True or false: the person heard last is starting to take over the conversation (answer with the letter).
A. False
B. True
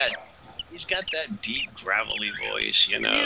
B